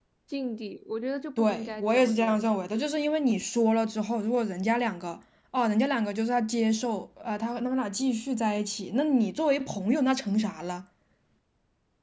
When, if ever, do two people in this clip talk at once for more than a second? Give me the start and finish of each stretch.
1.4-2.9

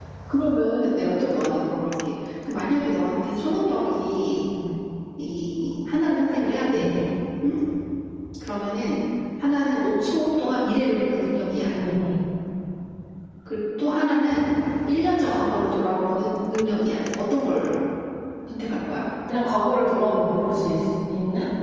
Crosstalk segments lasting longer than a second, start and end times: none

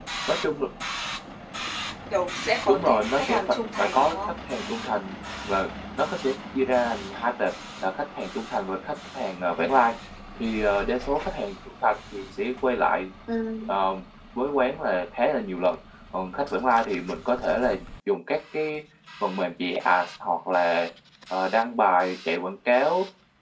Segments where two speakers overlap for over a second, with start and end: 2.7-4.2

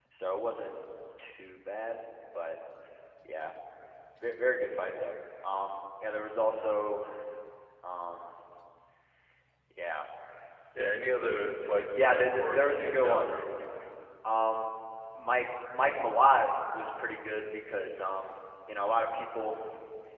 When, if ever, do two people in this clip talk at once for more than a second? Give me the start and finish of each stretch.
11.9-13.3

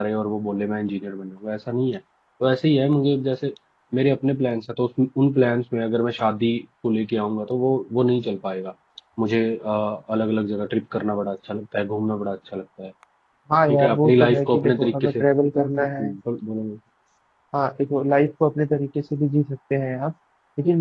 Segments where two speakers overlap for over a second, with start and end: 13.7-15.2

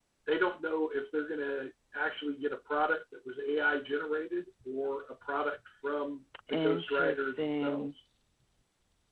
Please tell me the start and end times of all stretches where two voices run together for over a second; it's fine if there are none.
6.5-7.9

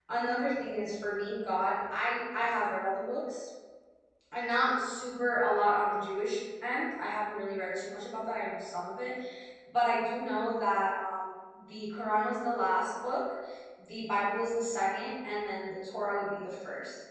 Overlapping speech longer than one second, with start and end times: none

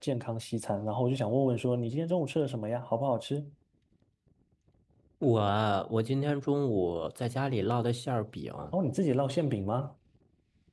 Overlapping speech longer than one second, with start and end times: none

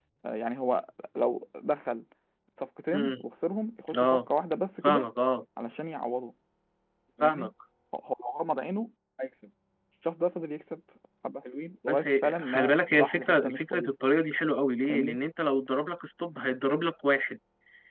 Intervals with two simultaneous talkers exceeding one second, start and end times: 11.9-13.9

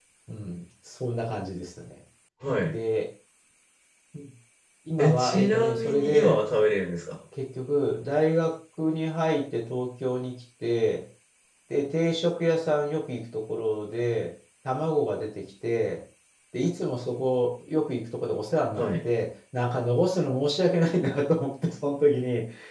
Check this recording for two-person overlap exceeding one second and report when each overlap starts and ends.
5.0-6.4

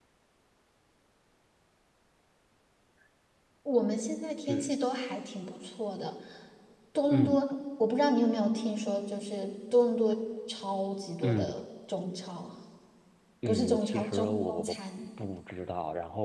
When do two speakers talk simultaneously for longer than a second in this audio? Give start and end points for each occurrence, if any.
13.5-14.8

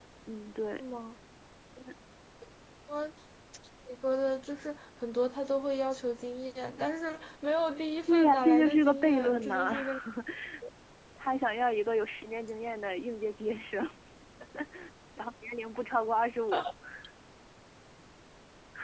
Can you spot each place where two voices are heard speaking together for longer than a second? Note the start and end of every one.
8.1-9.7

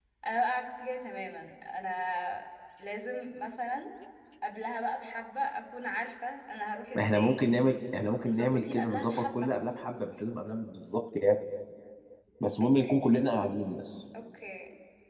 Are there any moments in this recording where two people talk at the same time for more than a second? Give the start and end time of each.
8.2-9.5

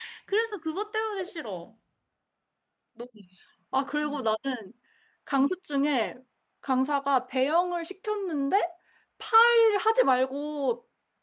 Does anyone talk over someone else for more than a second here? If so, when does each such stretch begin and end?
none

